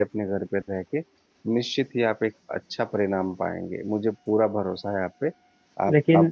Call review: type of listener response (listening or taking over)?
listening